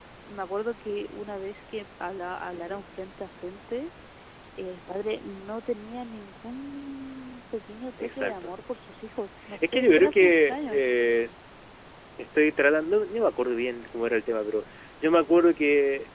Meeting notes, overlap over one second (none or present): present